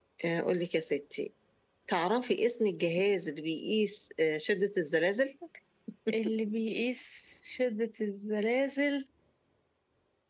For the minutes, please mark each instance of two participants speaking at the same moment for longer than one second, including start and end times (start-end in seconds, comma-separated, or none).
none